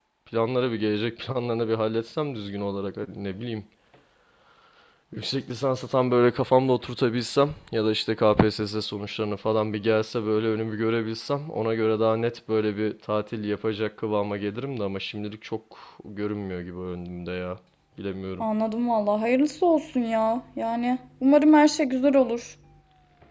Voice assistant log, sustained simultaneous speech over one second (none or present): none